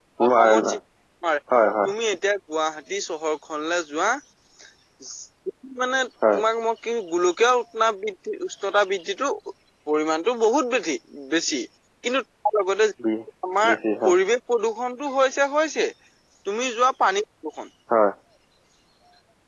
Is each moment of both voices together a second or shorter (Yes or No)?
Yes